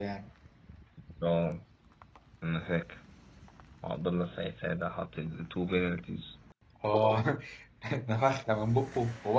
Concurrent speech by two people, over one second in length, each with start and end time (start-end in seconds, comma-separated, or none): none